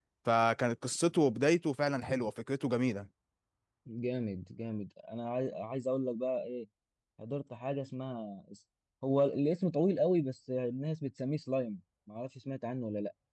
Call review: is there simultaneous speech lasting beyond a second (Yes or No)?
No